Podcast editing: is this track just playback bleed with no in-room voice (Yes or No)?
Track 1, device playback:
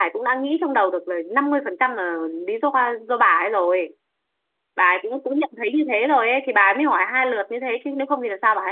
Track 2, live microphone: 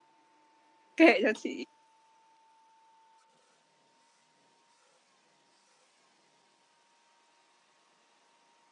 No